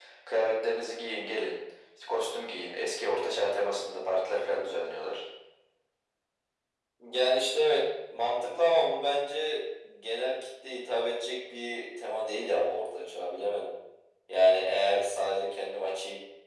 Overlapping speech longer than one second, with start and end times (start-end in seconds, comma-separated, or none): none